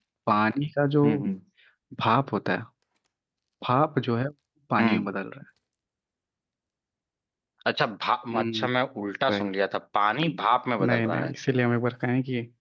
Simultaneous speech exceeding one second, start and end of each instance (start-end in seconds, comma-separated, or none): none